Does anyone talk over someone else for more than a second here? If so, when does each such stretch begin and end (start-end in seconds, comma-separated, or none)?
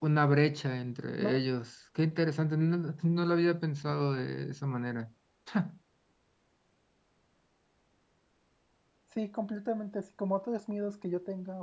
none